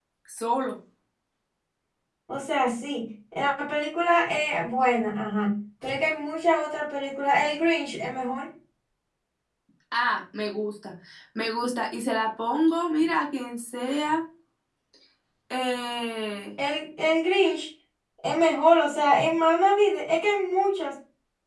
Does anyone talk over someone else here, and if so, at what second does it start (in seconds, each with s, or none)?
none